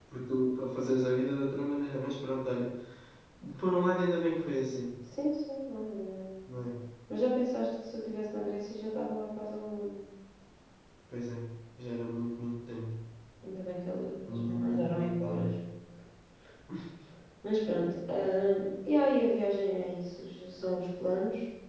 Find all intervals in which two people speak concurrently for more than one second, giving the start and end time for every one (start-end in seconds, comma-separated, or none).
14.3-15.5